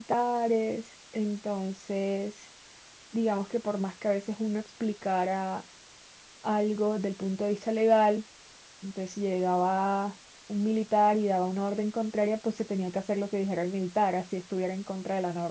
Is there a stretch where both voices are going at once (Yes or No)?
No